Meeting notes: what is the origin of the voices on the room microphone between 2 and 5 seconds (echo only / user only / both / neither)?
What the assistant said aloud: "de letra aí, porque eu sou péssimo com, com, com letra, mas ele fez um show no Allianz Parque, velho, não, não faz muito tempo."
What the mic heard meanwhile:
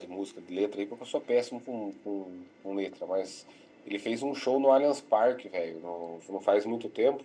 echo only